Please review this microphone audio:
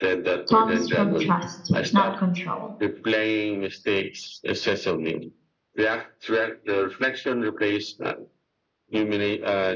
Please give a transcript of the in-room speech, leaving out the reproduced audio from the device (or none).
comes from trust, not control.